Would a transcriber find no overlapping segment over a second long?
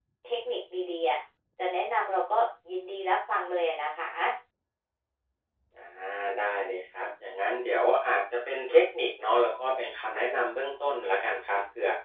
Yes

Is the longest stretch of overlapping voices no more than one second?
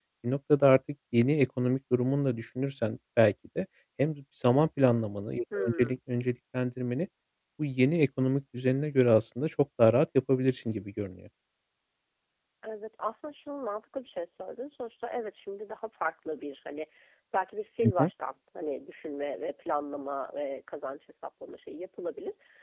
Yes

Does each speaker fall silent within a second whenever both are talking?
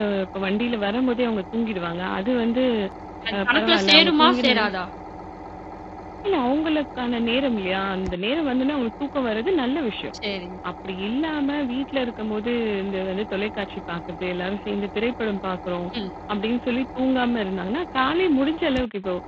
No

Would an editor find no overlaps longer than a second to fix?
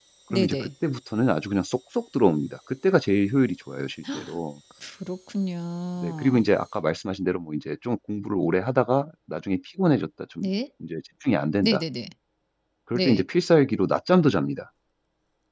Yes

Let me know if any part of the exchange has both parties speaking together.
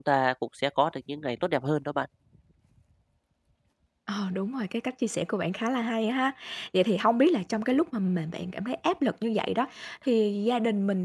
No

